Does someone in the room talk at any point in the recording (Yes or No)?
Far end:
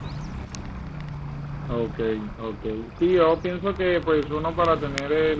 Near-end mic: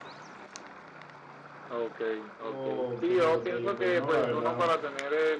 Yes